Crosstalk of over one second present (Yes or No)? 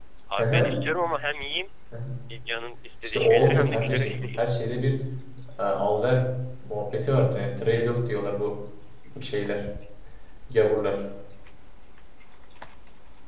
Yes